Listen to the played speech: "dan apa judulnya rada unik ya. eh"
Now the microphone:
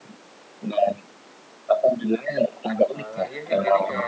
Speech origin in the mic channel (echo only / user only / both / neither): both